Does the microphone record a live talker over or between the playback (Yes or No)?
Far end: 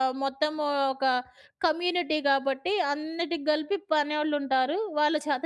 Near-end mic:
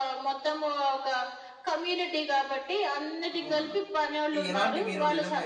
Yes